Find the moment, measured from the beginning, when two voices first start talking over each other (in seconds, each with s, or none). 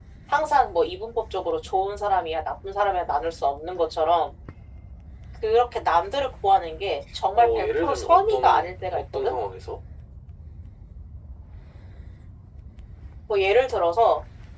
7.4 s